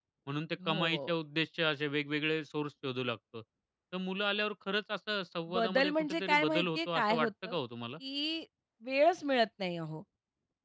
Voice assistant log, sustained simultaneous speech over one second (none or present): present